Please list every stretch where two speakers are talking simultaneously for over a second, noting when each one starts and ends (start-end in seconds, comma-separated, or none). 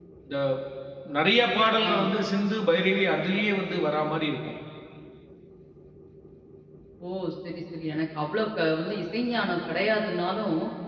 none